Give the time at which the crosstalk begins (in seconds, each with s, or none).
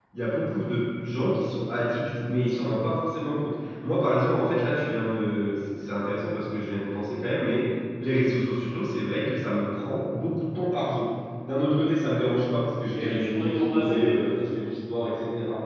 12.9 s